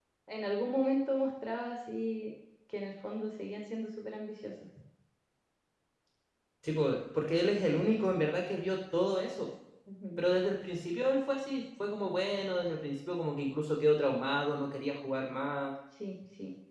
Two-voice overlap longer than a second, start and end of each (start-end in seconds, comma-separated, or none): none